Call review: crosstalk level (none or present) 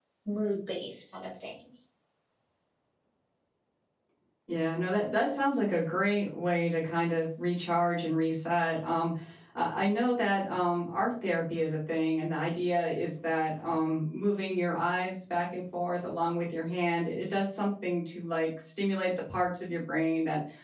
none